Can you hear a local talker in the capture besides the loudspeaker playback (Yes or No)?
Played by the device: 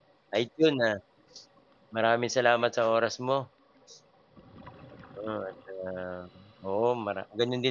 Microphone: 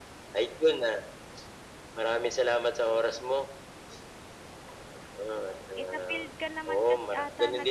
Yes